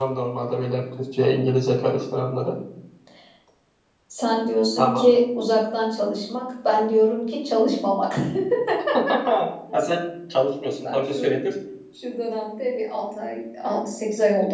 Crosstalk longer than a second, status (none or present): none